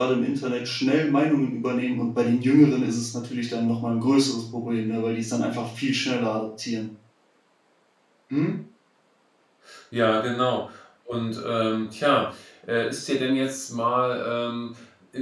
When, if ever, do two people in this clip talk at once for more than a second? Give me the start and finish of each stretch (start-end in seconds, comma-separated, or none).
none